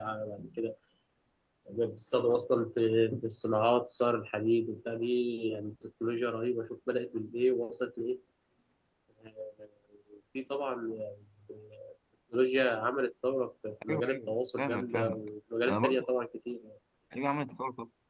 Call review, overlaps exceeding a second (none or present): present